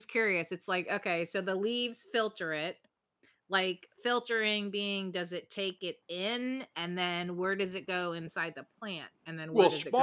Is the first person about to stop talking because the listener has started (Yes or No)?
Yes